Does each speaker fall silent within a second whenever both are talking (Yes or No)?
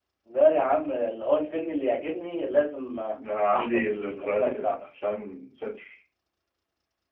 No